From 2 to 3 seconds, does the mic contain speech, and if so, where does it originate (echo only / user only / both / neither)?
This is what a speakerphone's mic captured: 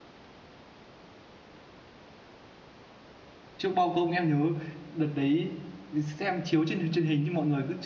neither